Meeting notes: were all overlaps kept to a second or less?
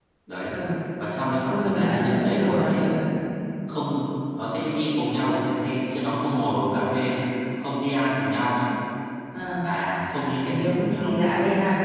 No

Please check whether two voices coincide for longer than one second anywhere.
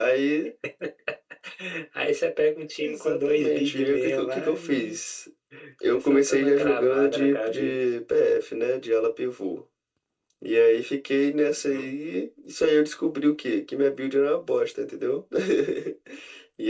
Yes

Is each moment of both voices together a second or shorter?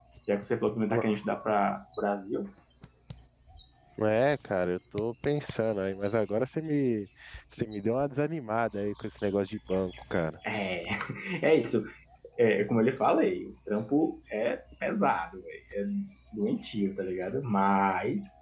Yes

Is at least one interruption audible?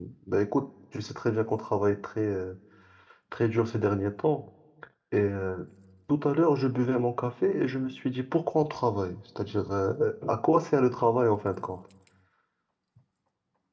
No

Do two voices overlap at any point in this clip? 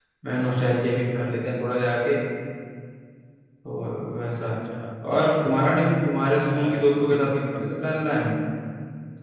Yes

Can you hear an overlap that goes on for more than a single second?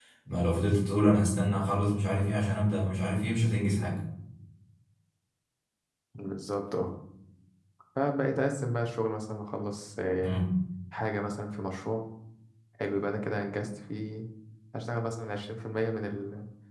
No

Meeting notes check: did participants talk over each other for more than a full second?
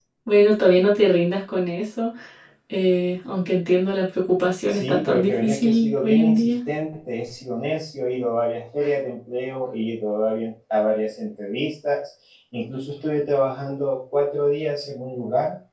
Yes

